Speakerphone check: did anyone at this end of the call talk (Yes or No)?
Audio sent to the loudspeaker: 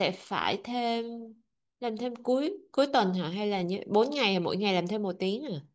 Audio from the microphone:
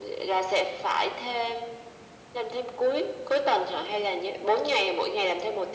No